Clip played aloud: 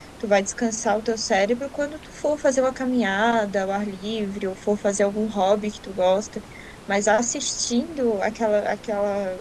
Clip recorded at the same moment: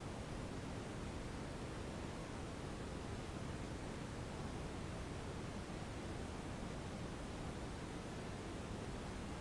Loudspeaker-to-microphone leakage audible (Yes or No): No